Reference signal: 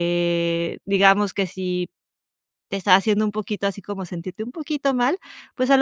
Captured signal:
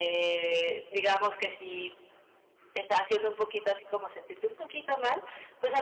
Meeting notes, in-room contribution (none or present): none